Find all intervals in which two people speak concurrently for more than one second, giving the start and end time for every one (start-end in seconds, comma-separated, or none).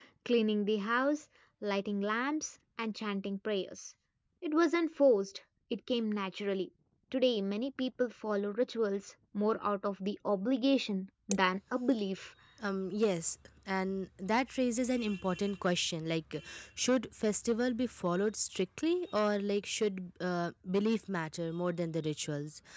none